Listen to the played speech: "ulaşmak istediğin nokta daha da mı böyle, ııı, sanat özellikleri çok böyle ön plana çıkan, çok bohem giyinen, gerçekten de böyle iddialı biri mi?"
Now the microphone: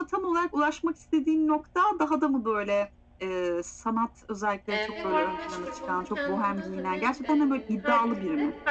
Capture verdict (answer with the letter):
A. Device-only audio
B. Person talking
B